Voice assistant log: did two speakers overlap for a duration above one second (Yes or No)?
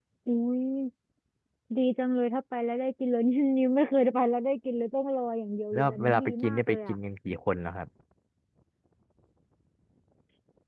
Yes